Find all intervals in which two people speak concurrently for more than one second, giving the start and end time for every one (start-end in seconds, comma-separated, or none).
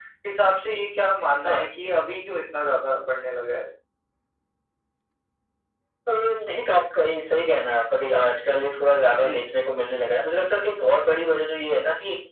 none